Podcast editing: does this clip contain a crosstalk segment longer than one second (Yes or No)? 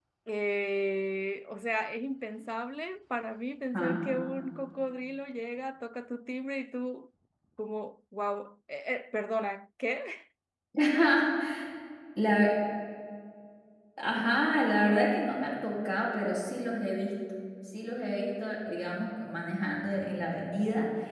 No